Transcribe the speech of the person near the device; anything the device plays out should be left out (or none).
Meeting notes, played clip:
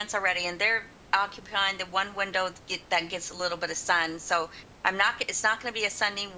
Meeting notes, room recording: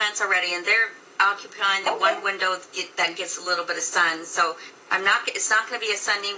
Okay.